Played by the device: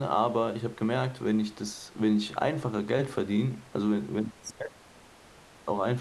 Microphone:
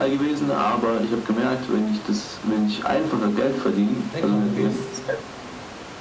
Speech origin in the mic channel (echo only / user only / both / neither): both